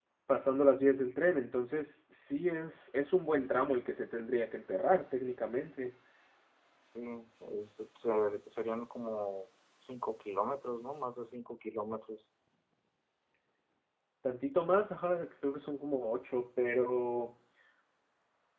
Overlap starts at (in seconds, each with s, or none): none